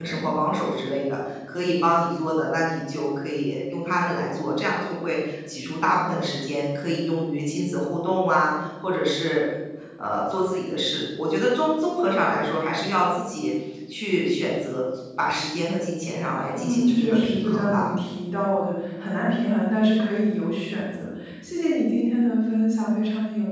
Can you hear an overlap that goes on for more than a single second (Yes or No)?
Yes